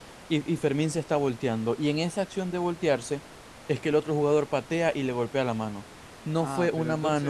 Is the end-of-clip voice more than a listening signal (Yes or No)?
Yes